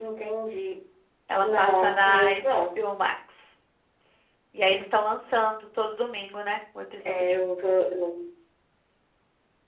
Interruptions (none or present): present